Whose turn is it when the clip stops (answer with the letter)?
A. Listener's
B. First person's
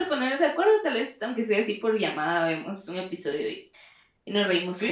A